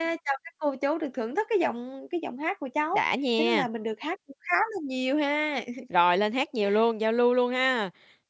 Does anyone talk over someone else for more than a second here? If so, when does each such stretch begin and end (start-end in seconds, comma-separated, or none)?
none